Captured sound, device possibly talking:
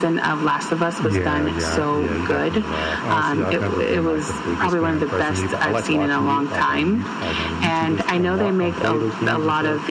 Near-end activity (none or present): present